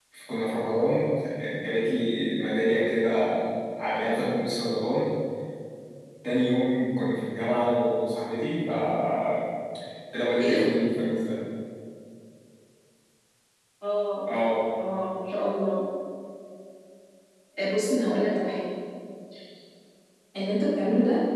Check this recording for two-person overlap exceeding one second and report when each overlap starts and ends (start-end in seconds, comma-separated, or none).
none